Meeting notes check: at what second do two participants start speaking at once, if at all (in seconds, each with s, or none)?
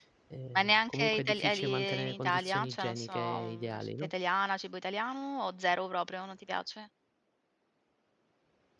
0.6 s